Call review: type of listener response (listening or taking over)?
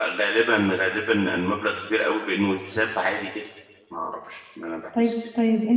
taking over